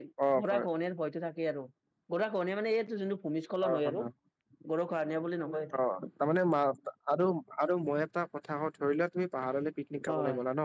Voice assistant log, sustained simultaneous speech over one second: none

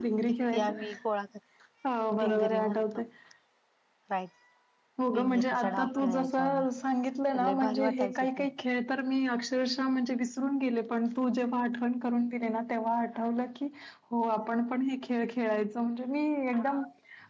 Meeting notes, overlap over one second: present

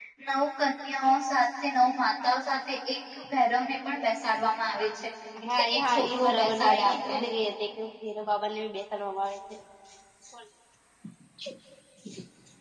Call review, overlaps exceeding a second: present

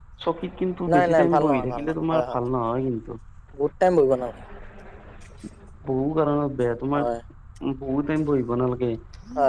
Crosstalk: present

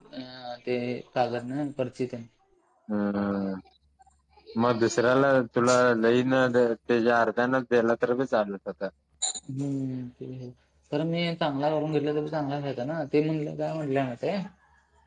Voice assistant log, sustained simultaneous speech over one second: none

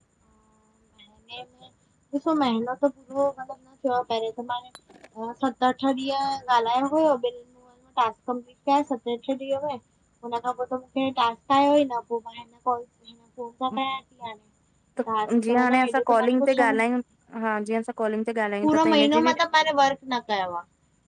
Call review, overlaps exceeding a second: present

